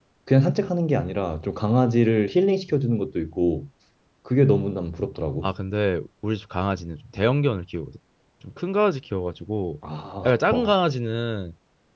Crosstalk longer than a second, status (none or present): none